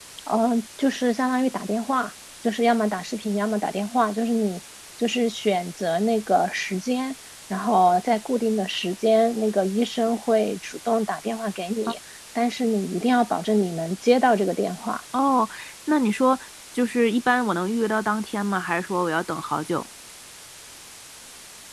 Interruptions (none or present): none